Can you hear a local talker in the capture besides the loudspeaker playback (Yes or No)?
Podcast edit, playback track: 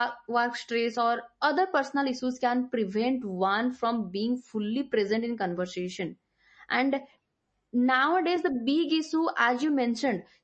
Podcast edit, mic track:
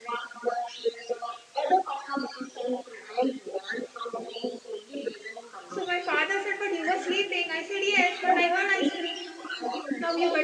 Yes